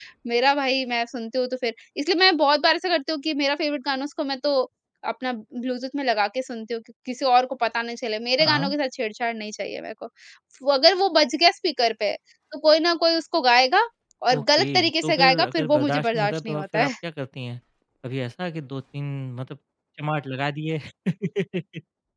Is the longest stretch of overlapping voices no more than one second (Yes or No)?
No